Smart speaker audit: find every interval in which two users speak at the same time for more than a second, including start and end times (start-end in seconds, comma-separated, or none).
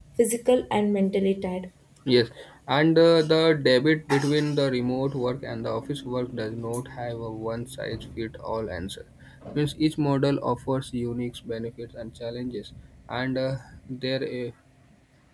none